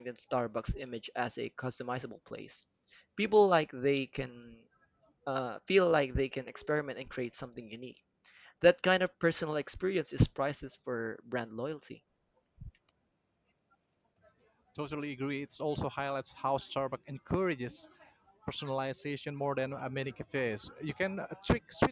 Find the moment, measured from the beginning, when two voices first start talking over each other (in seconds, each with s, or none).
none